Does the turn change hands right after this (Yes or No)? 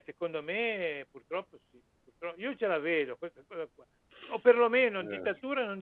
No